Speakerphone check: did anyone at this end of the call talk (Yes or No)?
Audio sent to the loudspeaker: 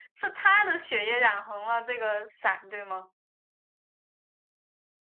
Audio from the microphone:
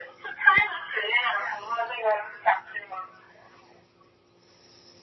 No